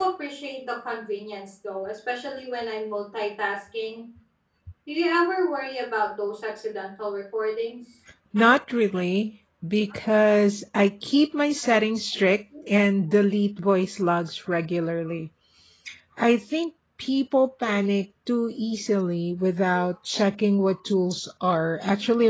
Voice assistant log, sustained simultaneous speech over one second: none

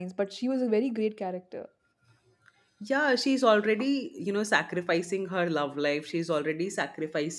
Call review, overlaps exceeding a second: none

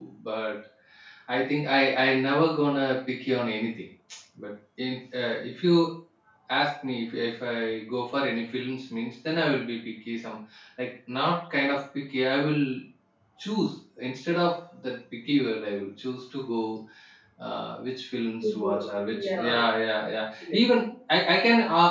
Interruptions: present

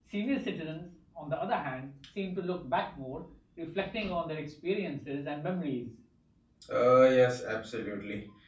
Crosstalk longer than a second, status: none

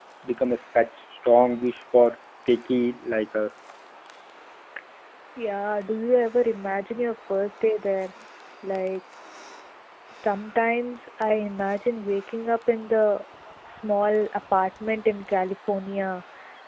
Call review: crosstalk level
none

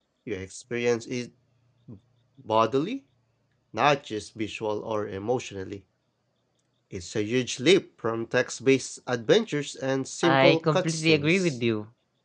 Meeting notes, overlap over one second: present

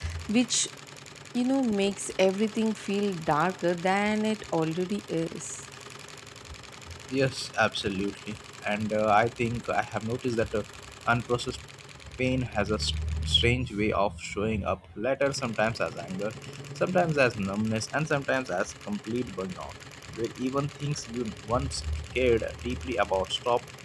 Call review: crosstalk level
none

